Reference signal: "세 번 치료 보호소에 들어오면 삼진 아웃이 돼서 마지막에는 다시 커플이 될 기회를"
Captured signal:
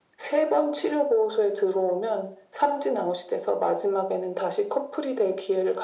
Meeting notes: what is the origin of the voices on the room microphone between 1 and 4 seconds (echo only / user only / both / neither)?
echo only